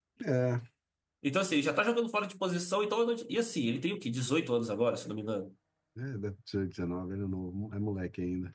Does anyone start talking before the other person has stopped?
No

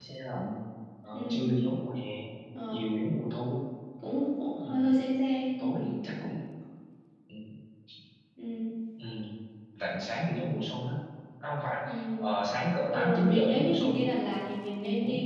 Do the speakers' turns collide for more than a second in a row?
Yes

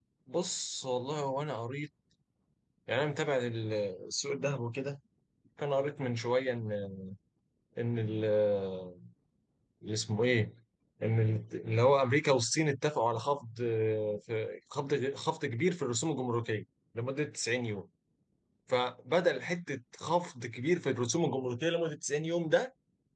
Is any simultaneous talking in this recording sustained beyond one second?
No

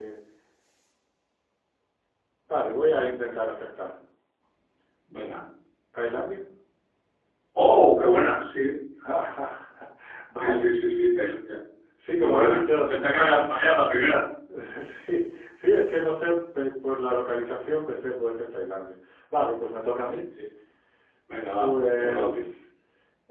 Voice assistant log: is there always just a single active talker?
No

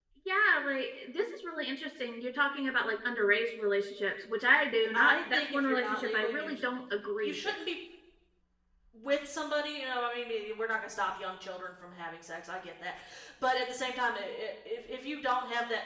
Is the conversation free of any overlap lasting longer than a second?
No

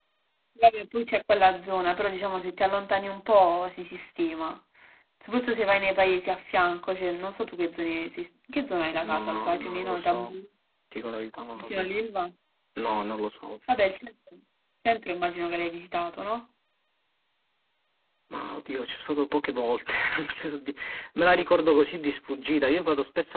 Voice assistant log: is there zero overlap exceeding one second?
No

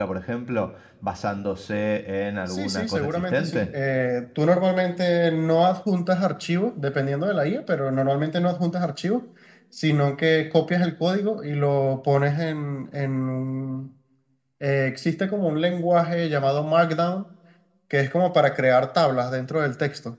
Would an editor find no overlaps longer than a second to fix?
No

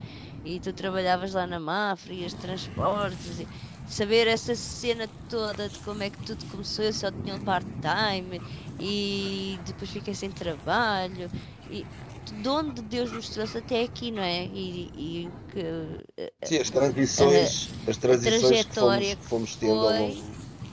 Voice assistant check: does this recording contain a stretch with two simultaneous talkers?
Yes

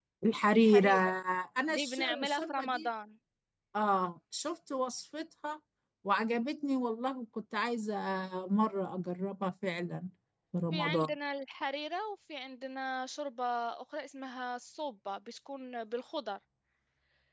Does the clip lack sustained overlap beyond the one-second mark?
No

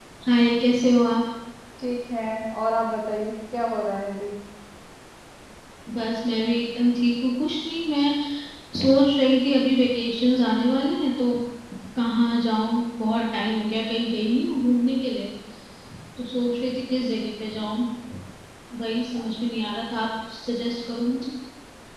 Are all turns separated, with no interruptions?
Yes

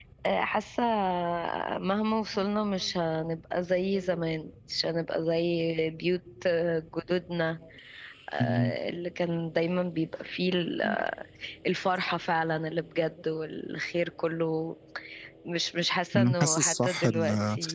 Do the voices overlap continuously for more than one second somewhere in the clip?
Yes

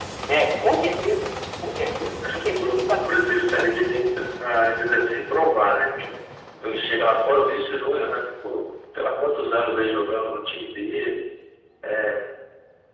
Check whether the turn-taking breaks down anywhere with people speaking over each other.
Yes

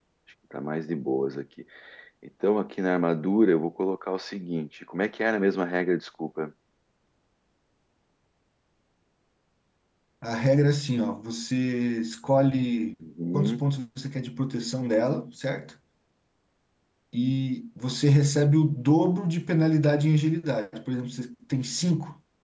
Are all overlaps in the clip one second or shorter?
Yes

